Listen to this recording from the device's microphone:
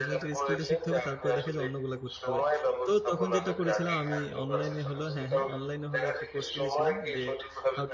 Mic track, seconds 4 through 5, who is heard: both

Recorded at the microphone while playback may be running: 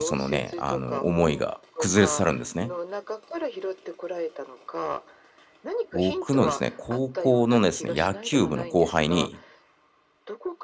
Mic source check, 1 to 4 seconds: both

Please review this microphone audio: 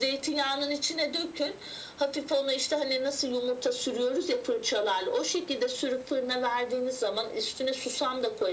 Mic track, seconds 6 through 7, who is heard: echo only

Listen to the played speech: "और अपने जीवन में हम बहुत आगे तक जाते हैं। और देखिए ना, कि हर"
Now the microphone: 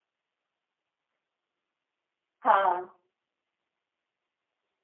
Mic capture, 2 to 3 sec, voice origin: user only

